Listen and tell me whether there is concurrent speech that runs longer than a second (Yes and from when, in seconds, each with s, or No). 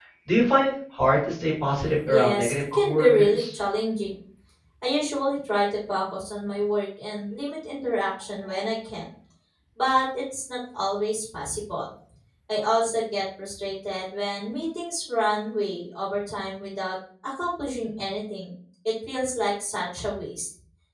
Yes, from 2.1 s